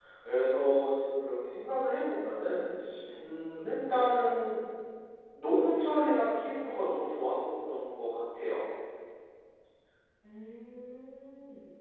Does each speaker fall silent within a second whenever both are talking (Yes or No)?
Yes